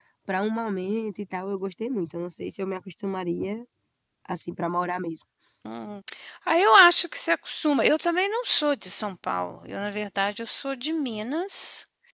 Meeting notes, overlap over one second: none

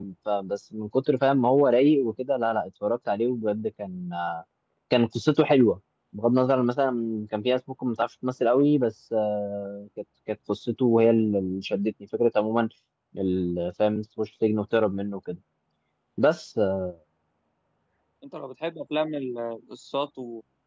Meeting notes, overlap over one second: none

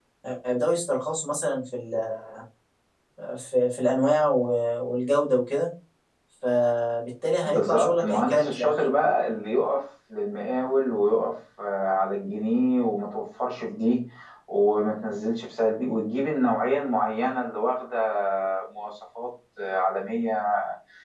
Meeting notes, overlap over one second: present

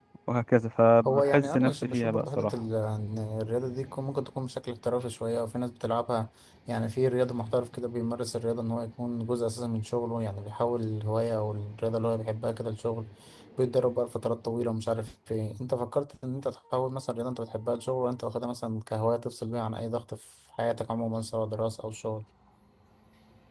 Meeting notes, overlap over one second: present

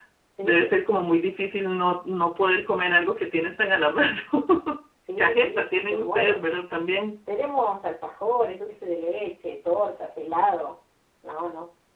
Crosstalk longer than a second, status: present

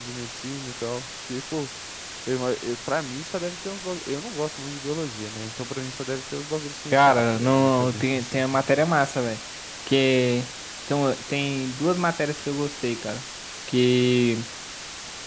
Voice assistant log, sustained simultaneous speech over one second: present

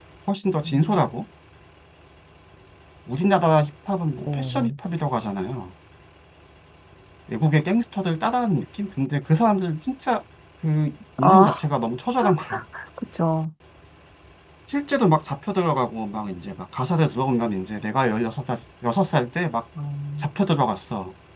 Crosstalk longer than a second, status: none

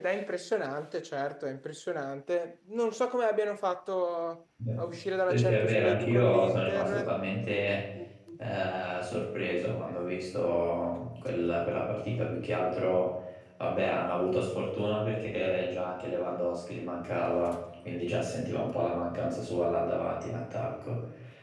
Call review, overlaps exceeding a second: present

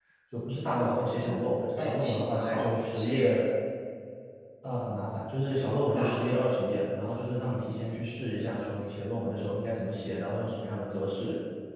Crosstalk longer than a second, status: present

